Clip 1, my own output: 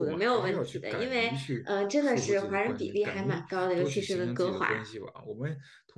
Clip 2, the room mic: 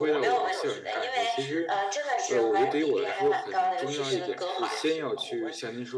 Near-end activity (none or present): present